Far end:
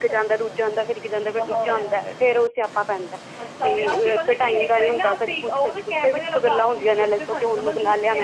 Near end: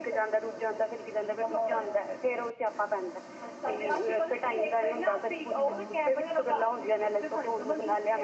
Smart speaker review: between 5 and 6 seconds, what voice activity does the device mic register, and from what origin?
both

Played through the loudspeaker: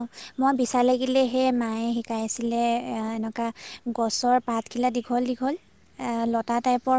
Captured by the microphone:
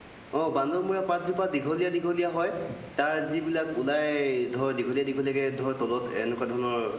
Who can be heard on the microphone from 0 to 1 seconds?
user only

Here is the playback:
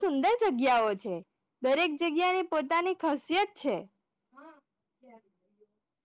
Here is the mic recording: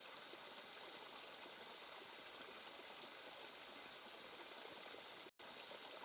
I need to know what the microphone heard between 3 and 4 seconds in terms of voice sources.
neither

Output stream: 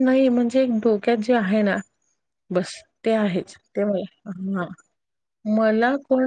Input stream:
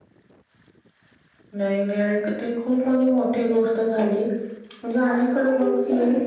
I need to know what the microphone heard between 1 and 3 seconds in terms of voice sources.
user only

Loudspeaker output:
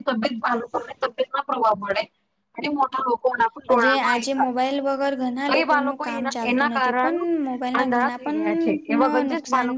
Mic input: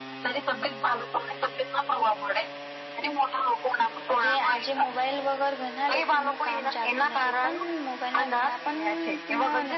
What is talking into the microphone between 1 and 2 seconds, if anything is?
echo only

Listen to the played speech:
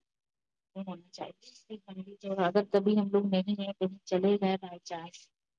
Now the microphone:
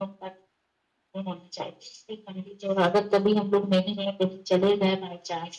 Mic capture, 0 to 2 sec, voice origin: echo only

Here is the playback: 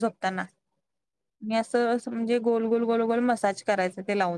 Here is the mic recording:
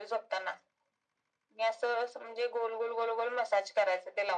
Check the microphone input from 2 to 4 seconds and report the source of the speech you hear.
echo only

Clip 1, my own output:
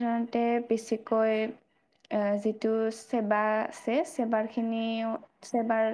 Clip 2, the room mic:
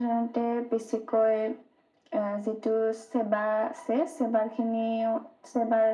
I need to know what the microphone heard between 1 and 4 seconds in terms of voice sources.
echo only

